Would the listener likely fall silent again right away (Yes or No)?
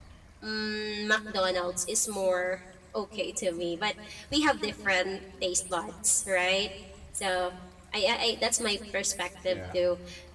Yes